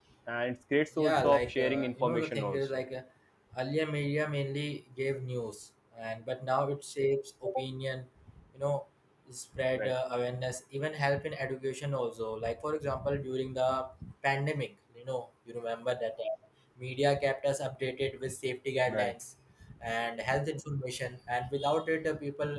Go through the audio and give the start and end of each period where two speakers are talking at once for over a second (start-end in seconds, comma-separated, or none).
1.0-2.7